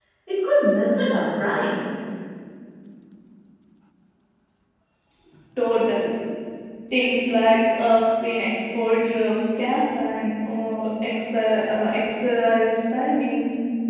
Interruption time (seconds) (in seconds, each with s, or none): none